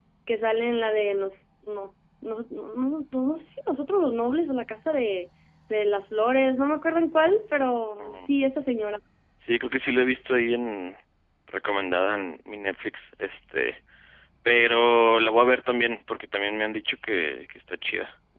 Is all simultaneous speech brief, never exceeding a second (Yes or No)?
Yes